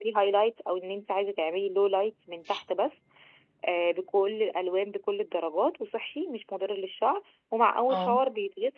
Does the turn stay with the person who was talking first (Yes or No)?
Yes